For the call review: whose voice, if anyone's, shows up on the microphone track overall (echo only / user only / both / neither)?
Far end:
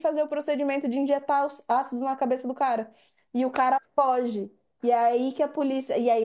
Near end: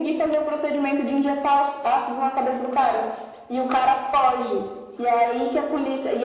echo only